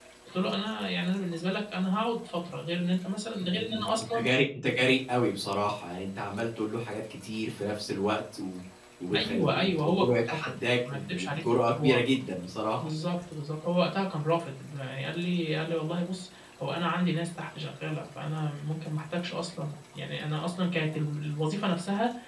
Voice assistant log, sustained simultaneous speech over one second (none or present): present